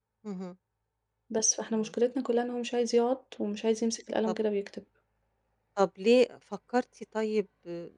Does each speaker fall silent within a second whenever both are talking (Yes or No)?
Yes